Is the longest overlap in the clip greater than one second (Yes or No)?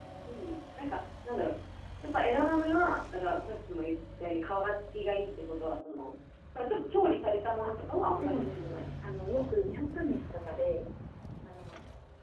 Yes